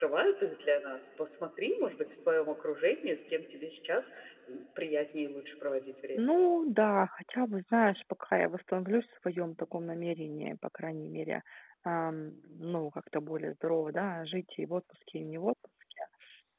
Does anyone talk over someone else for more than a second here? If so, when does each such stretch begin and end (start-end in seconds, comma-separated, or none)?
none